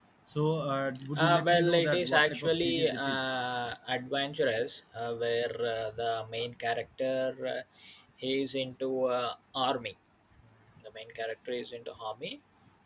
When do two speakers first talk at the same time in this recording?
1 s

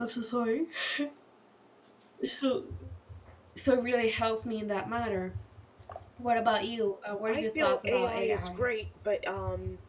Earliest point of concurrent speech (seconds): 7 s

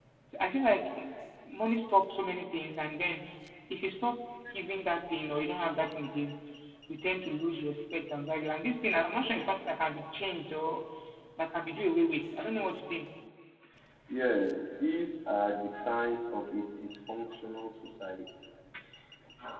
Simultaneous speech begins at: none

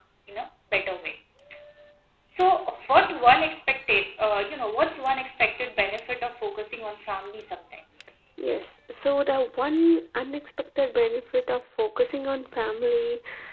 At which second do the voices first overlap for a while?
none

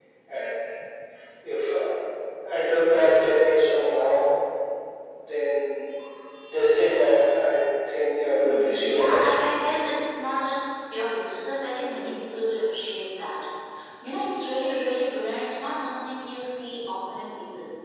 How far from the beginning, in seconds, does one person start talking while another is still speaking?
8 s

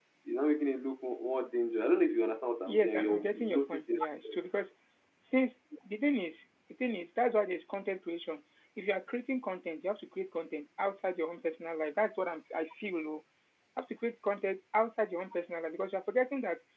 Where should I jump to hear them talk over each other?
3 s

